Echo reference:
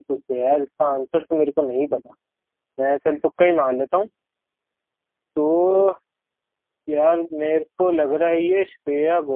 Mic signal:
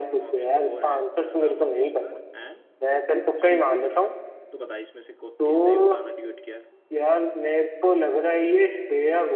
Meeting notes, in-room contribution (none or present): present